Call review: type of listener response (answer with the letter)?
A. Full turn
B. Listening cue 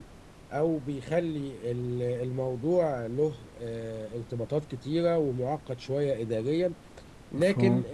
B